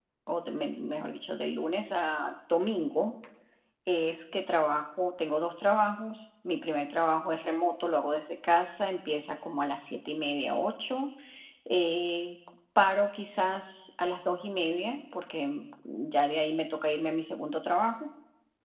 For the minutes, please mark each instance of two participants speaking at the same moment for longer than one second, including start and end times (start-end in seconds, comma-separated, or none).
none